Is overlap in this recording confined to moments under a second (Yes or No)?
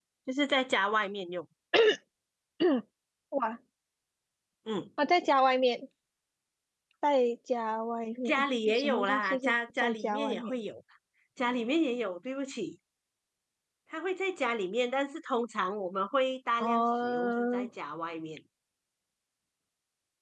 No